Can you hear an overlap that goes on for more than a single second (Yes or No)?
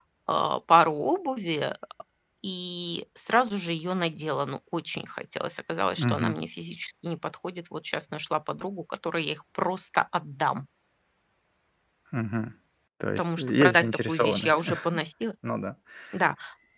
Yes